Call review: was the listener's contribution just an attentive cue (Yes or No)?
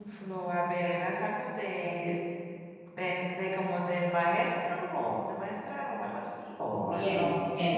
No